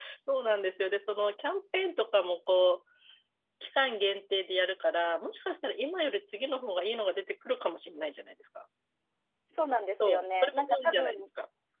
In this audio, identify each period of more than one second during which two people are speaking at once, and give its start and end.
10.0-11.3

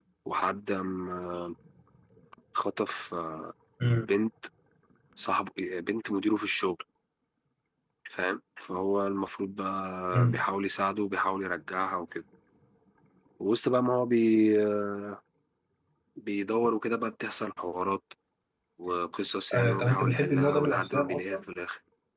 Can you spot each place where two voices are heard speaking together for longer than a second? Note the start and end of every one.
19.6-21.4

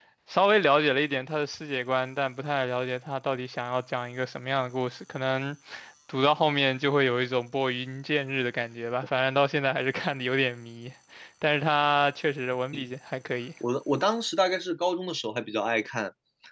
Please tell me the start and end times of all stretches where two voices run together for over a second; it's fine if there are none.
none

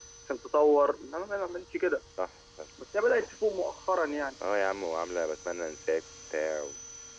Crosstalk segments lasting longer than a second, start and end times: none

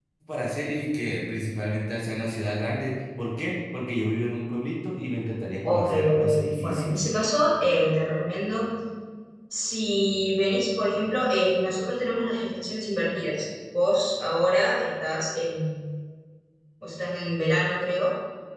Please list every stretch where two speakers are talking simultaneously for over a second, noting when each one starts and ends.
5.6-7.0

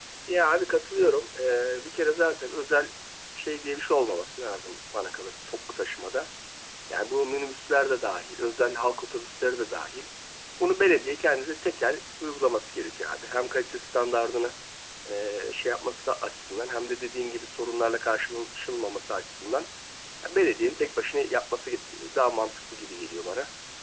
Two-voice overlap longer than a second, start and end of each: none

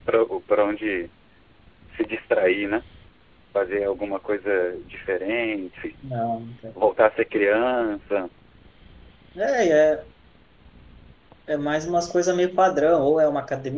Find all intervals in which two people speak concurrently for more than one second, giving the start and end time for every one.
none

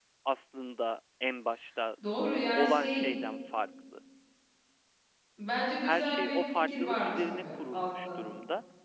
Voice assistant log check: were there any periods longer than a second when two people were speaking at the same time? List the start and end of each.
5.8-8.3

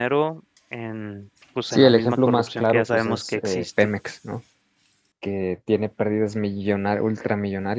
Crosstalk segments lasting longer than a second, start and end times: 1.7-3.9

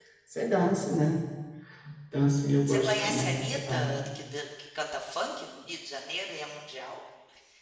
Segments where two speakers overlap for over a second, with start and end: 2.7-4.0

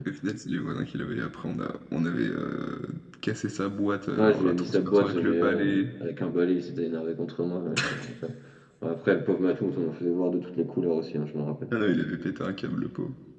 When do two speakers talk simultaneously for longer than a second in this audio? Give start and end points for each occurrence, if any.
4.1-5.8

